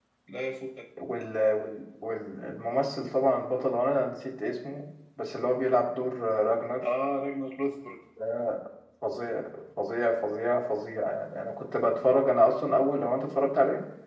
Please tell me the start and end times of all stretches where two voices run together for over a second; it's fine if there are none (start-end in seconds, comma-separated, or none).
none